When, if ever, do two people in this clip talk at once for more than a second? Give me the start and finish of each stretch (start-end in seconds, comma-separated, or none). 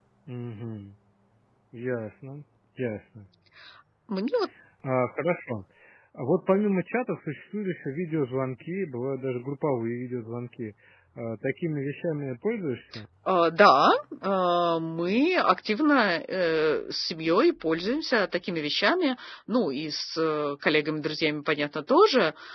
none